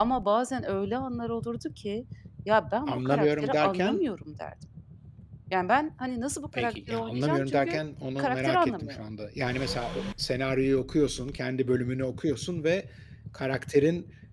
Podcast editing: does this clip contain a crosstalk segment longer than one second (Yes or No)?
Yes